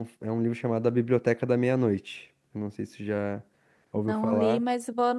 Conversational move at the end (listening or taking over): taking over